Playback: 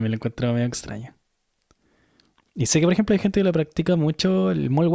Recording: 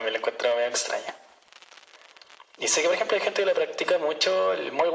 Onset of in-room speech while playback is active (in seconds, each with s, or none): none